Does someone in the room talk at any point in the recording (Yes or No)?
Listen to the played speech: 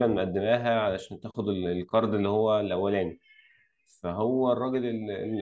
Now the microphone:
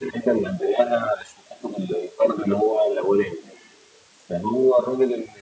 No